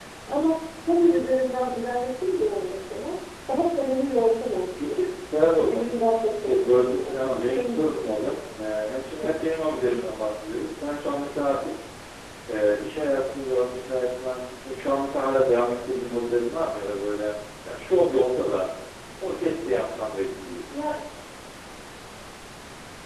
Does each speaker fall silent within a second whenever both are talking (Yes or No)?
No